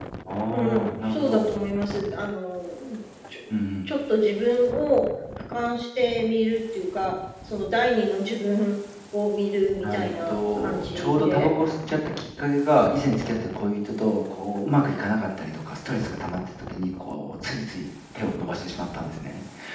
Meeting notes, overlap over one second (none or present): present